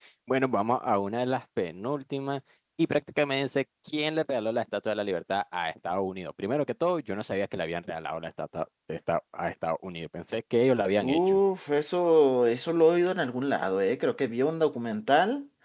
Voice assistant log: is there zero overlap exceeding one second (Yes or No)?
Yes